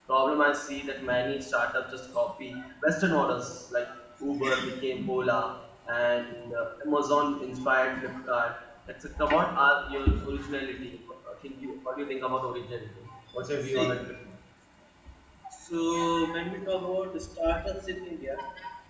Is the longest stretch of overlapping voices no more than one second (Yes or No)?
Yes